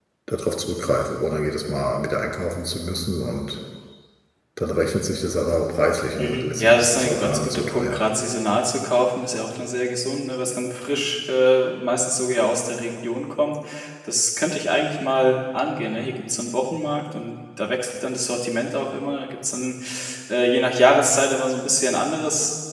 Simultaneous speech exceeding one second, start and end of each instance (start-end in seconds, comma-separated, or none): 6.2-8.0